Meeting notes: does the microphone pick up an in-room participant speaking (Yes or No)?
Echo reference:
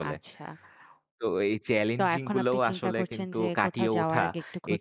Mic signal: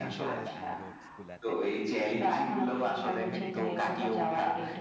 Yes